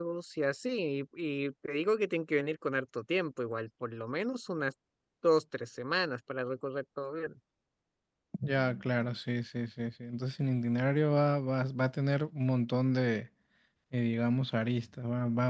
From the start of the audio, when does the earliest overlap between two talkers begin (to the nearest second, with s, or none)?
none